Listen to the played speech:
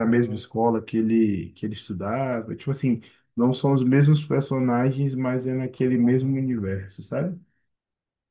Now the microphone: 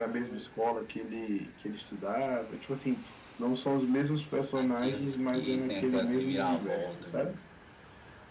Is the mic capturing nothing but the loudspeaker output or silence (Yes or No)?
No